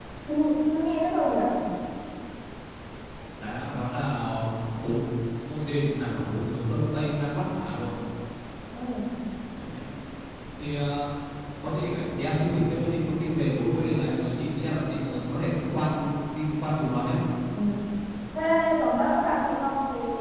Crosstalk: none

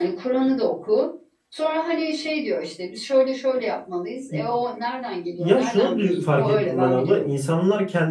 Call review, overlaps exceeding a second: present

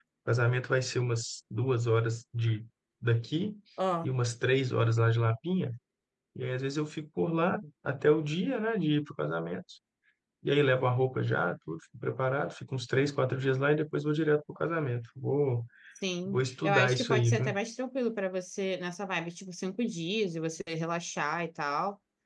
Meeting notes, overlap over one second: present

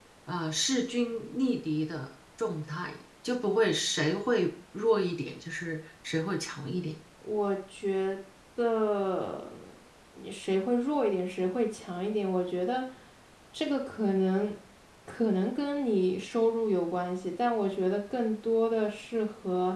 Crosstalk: none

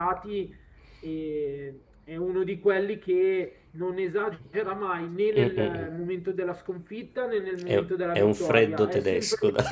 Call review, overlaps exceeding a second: present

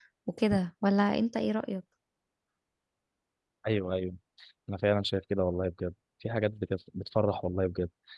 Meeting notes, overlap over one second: none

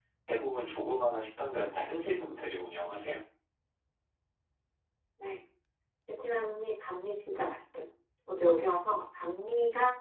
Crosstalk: none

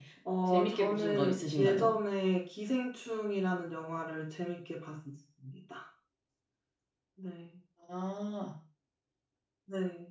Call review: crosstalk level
present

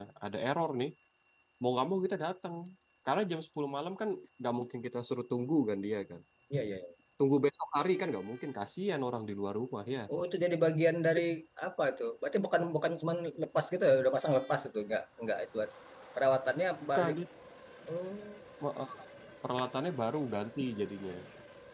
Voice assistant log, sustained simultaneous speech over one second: none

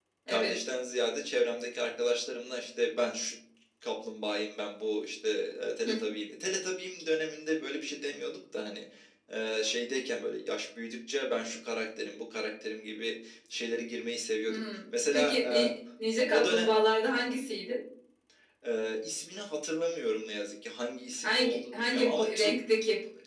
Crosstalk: present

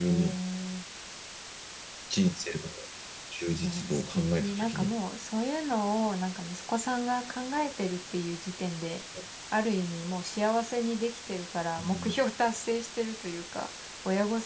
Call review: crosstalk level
present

